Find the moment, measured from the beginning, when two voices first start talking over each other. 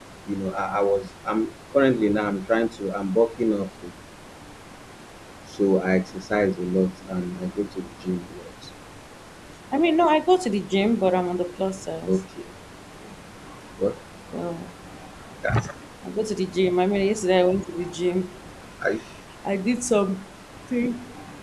none

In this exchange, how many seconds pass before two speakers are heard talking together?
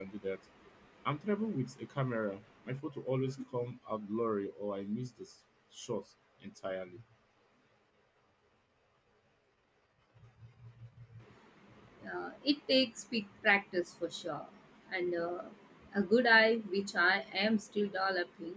none

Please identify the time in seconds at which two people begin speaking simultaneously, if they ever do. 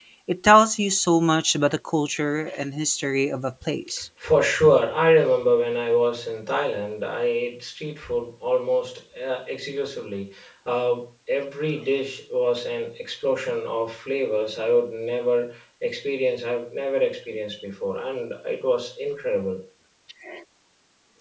none

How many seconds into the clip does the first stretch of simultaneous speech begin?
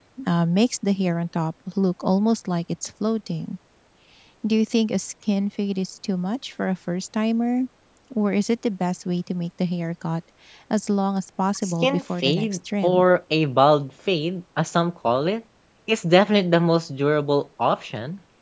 11.6 s

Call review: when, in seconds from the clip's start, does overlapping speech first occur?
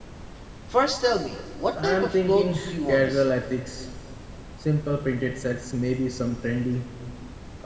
1.8 s

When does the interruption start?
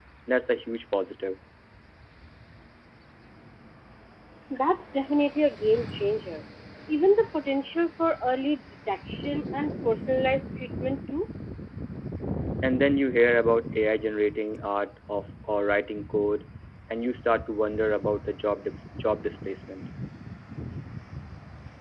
none

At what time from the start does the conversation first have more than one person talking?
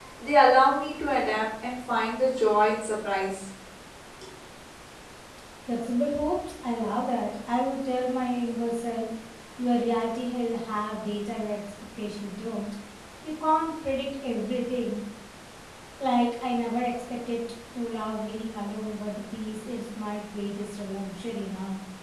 none

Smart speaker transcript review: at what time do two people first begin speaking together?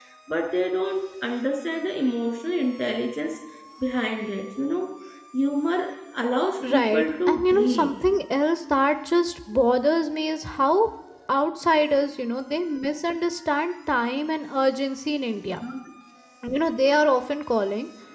6.7 s

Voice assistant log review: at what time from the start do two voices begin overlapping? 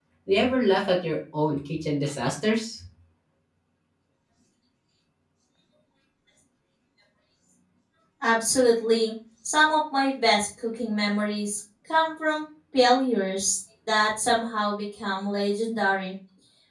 none

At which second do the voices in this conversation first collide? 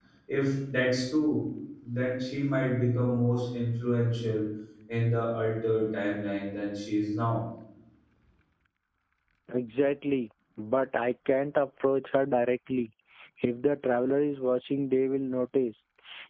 none

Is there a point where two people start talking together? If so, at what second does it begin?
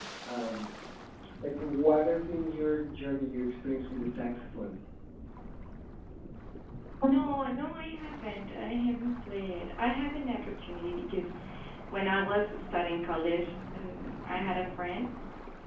none

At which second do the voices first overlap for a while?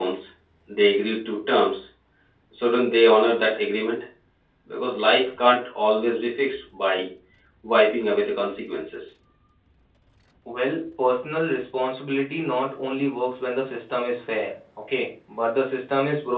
none

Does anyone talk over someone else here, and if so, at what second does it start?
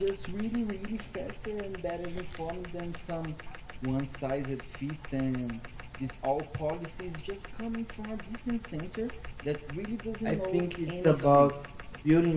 10.2 s

